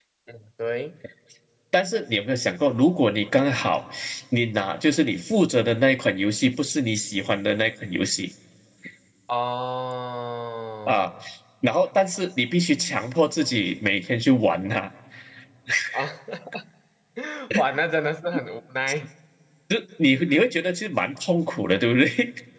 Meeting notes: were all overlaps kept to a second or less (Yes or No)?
Yes